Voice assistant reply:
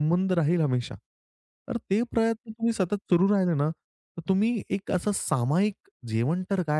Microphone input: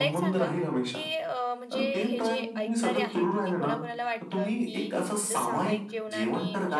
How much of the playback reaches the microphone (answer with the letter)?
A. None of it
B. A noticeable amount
B